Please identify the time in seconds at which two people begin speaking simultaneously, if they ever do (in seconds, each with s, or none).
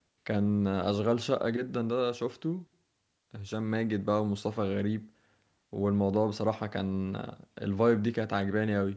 none